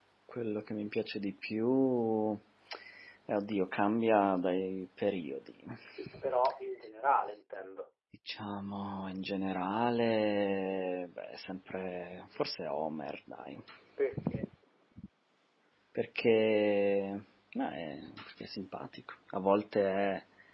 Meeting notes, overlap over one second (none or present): none